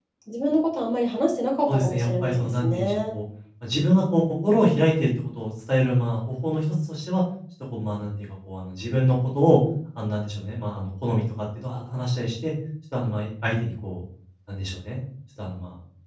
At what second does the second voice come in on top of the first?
1.7 s

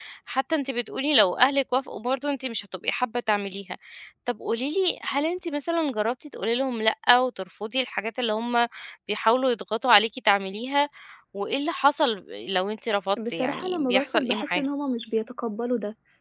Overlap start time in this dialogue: 13.2 s

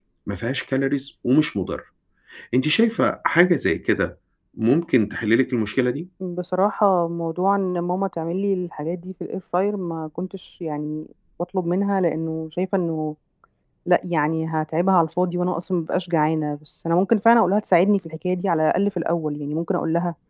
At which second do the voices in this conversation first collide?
none

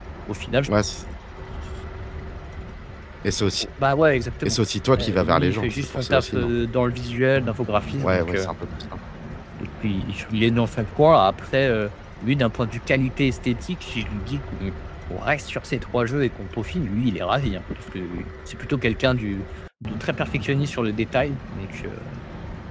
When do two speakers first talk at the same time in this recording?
5.0 s

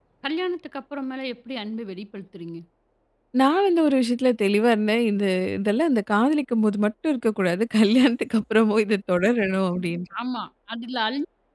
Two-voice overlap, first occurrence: none

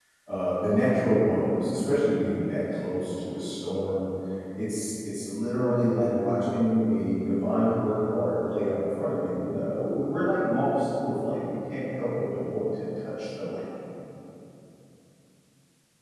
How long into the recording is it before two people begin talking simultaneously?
none

